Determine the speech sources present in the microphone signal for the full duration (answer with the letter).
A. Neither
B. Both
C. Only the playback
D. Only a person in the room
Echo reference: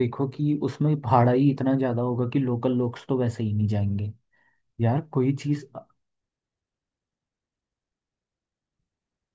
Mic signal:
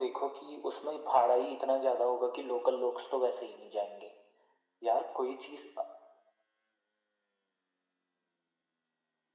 C